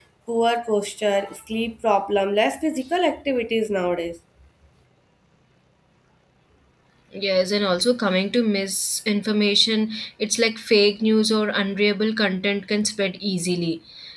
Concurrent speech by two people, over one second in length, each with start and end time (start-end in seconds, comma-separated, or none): none